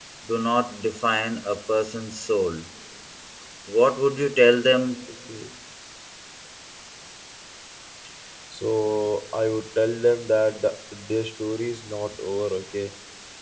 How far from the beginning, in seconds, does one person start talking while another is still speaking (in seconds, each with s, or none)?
none